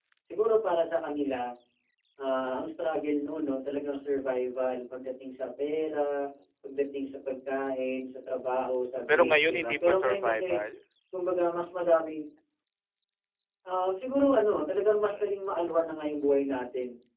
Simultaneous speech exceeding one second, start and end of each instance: 9.1-10.6

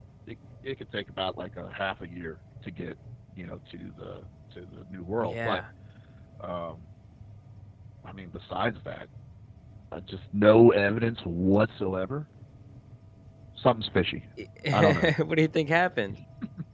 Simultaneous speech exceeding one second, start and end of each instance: none

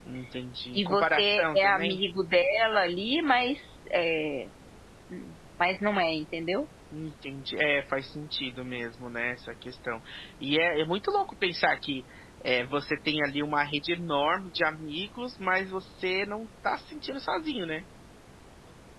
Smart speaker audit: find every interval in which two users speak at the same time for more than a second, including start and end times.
0.8-2.0

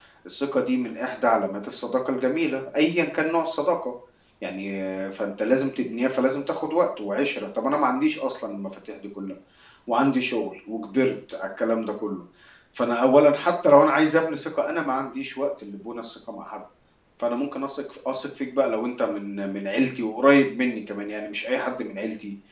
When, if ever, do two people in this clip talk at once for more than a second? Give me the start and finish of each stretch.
none

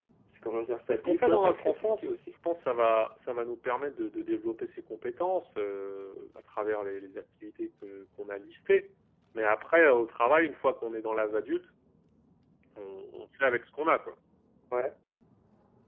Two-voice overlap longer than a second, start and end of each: 0.9-2.1

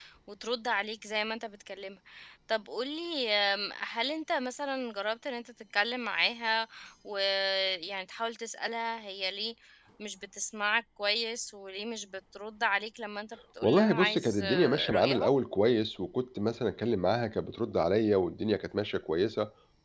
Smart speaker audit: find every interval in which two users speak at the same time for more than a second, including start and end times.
13.6-15.3

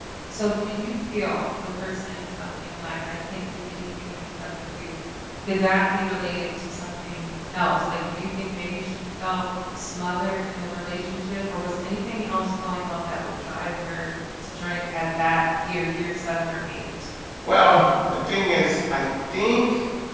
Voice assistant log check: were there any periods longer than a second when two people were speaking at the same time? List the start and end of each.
none

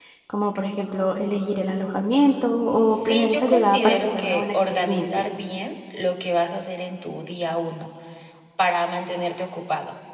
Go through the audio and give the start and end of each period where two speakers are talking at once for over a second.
2.9-5.3

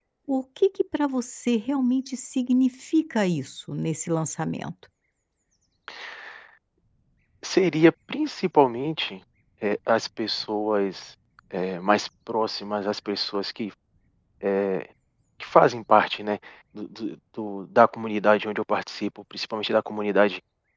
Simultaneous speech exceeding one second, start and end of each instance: none

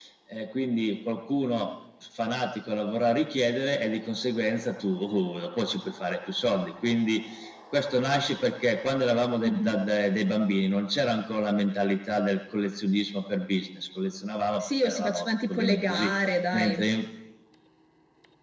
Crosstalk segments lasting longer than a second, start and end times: 14.8-16.1

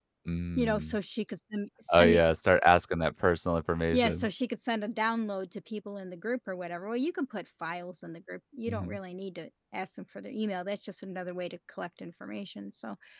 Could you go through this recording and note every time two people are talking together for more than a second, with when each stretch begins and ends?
none

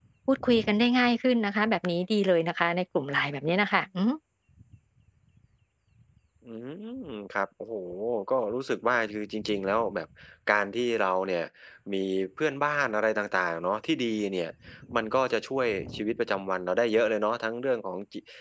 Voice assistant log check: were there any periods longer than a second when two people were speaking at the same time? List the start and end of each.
none

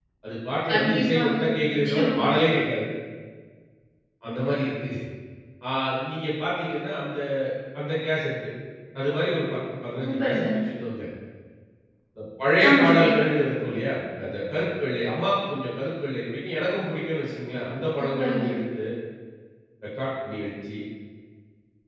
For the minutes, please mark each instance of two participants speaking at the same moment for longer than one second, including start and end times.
0.7-2.2

